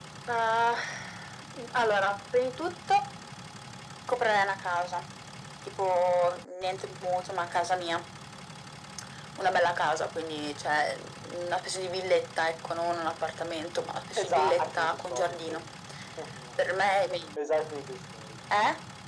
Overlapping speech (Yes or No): Yes